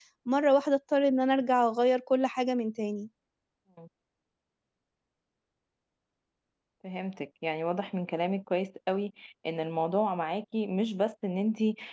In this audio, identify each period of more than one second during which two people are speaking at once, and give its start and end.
none

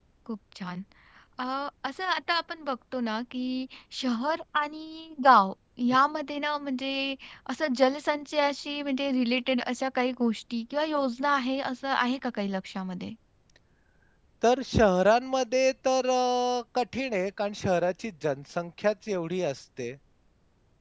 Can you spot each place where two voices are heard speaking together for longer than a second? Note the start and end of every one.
none

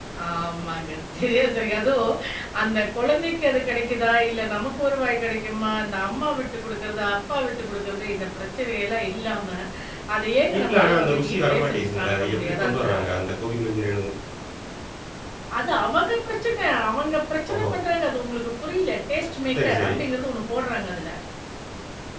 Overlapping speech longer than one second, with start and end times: 10.5-13.2

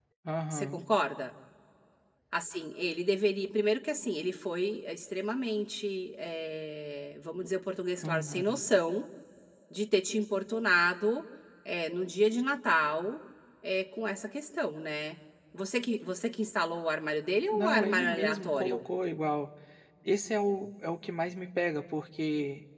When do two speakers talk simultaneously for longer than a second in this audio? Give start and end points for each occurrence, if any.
17.5-18.8

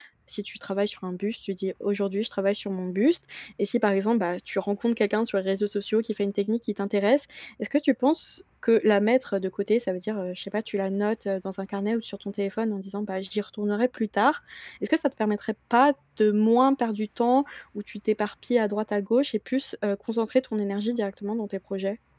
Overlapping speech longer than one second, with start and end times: none

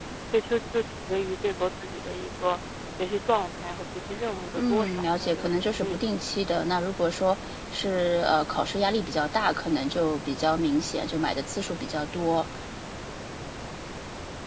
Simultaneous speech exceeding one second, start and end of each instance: 4.5-6.0

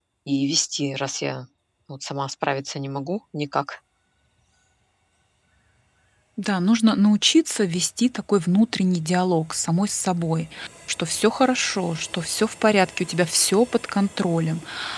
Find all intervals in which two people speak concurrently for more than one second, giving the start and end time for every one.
none

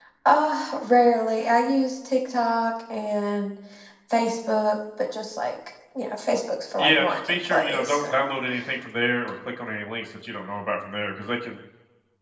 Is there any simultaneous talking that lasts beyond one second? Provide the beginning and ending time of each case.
6.8-8.3

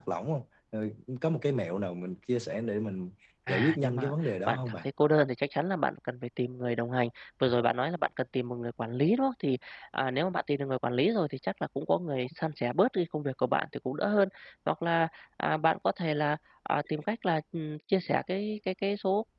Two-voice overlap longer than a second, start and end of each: 3.5-4.8

